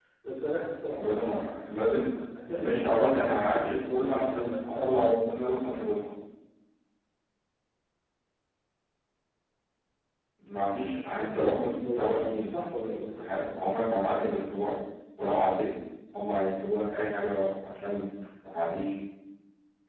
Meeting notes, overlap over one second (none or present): present